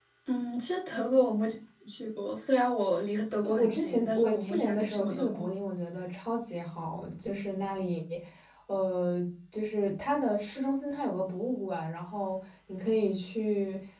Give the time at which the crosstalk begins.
3.4 s

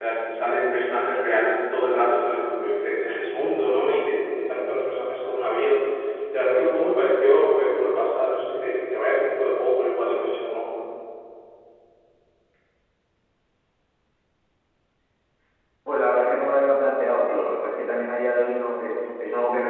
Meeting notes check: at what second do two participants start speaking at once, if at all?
none

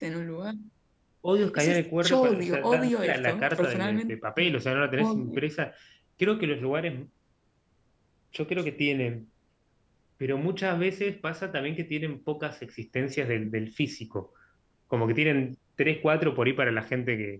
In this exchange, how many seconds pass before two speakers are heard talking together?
1.5 s

